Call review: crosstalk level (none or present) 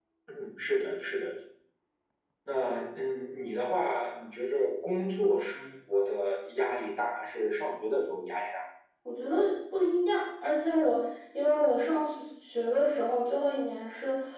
none